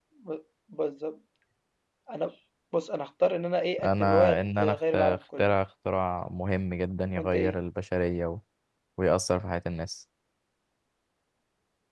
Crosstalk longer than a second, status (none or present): present